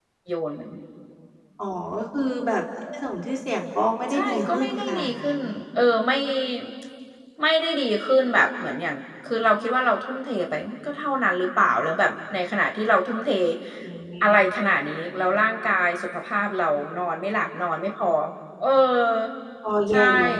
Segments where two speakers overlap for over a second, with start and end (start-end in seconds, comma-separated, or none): 4.1-5.4